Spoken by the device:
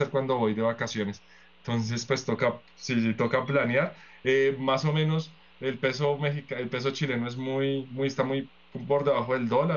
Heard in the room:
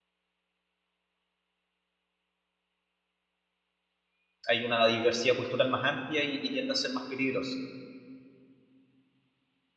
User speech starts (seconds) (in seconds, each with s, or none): 4.5 s